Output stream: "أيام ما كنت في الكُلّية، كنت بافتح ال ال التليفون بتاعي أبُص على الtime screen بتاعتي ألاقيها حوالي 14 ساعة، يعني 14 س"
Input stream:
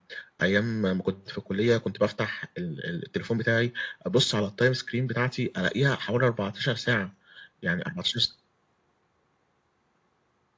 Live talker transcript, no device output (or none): none